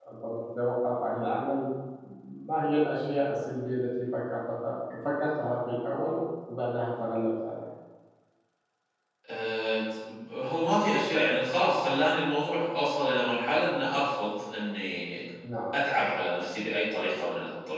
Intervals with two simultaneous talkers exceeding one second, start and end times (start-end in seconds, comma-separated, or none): none